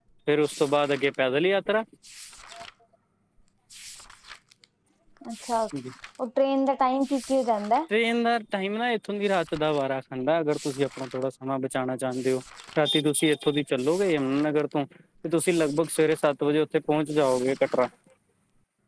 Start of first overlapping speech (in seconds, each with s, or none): none